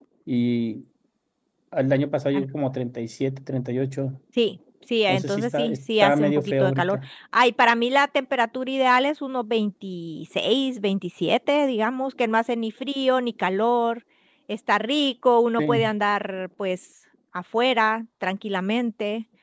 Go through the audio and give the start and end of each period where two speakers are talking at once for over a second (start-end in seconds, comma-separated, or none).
5.1-7.0